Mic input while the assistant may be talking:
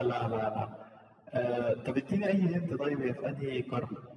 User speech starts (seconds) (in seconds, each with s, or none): none